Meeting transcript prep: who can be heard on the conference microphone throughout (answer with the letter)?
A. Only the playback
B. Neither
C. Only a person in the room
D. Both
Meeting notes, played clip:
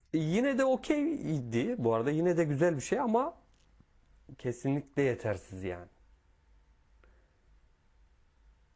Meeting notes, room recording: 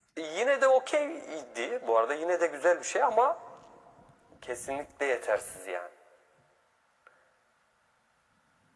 A